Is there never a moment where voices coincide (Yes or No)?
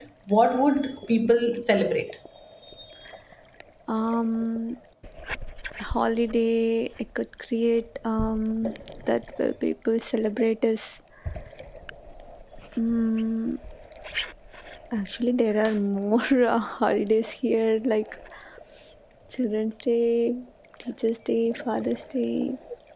Yes